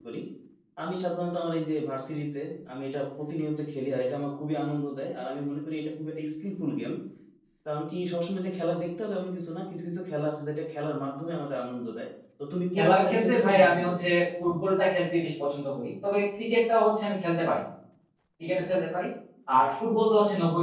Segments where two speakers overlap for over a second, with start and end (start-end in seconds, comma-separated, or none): 12.8-14.1